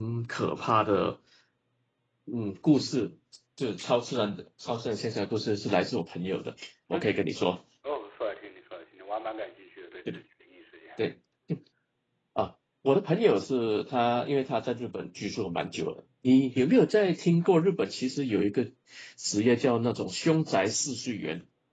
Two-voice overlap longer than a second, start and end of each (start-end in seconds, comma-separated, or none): none